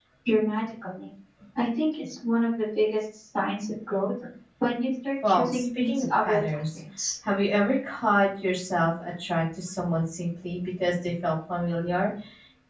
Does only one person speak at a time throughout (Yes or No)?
No